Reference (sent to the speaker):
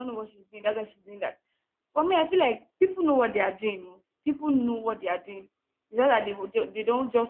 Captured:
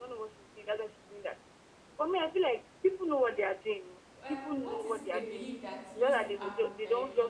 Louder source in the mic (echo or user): echo